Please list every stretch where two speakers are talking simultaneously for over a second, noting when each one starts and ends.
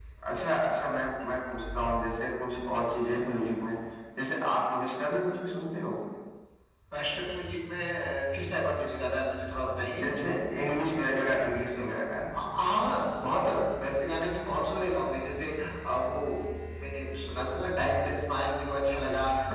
none

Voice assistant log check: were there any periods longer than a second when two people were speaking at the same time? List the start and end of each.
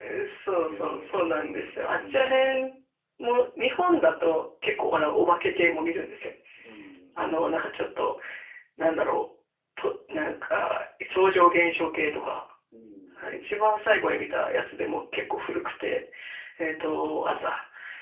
0.6-2.5

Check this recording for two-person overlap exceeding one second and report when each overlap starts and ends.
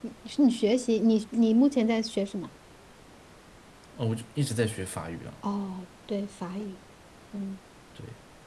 none

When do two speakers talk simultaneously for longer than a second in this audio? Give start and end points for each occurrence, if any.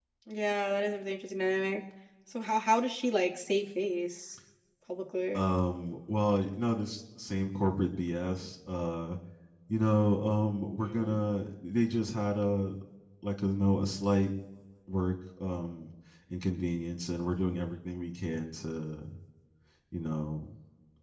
none

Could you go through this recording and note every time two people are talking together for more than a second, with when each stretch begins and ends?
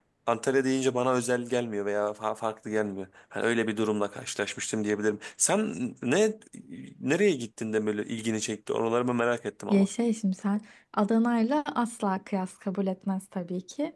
none

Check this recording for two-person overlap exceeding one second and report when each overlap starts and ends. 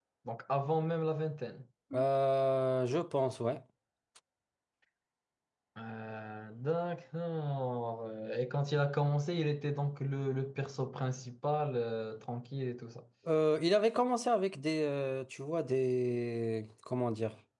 none

